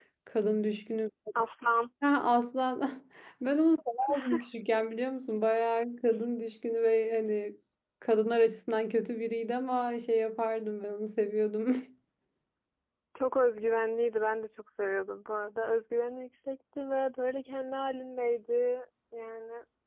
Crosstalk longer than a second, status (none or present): none